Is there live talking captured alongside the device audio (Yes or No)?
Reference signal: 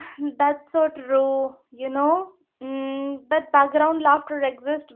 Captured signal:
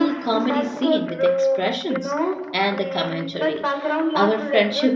Yes